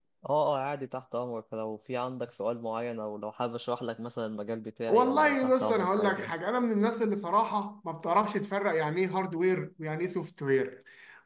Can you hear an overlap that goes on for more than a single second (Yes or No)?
Yes